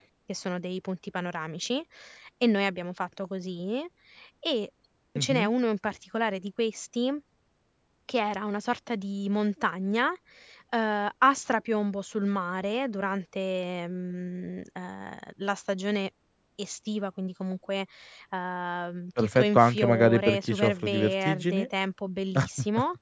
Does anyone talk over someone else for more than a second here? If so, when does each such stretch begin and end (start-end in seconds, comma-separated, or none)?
19.2-21.7